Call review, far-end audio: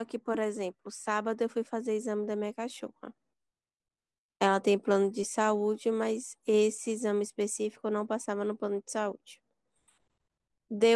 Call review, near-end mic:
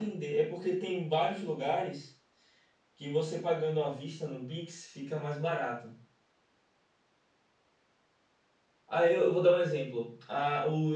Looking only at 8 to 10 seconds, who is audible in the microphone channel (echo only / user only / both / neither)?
user only